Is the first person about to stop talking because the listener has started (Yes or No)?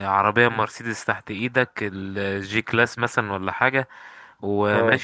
No